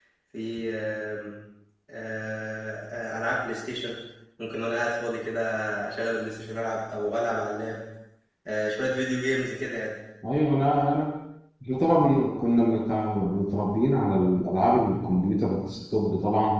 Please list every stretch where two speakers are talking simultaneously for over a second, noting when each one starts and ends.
none

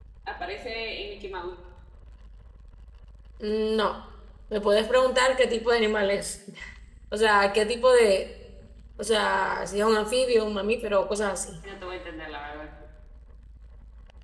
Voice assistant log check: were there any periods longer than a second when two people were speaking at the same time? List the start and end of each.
none

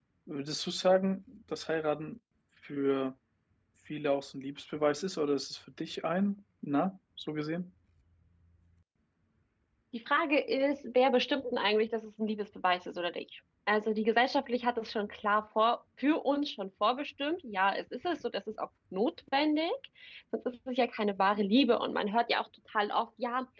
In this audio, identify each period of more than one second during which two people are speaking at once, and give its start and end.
none

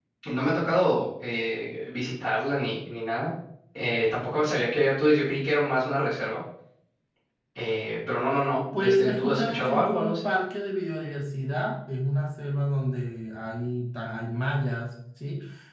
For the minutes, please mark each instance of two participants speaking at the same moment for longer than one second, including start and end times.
8.7-10.2

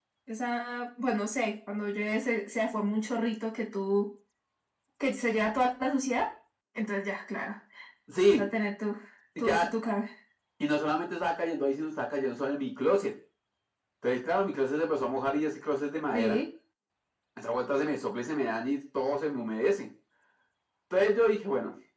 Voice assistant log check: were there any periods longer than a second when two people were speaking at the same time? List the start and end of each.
none

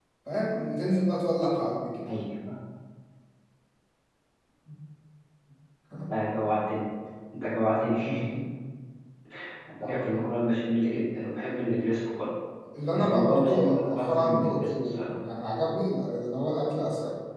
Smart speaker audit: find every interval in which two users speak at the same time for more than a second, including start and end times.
12.9-15.1

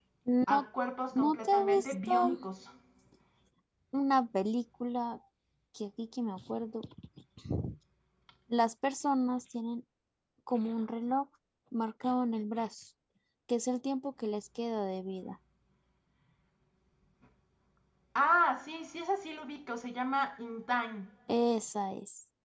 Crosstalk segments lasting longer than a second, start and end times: 1.1-2.4

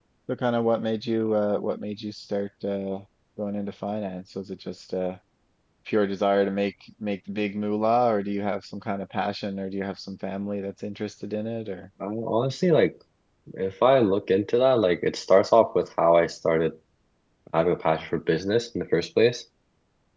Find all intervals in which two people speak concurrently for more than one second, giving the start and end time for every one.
none

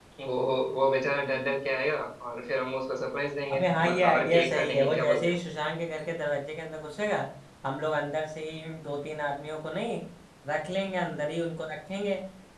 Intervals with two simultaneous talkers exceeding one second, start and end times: 3.5-5.4

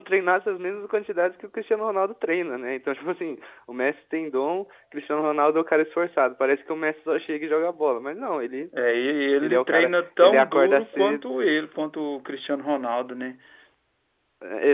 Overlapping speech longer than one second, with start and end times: 9.4-11.2

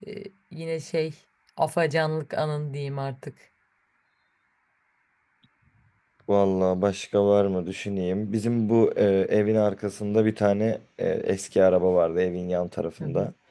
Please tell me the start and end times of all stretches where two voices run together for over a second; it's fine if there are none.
none

